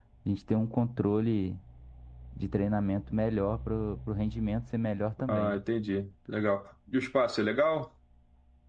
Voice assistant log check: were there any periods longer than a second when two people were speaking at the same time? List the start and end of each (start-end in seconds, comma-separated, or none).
none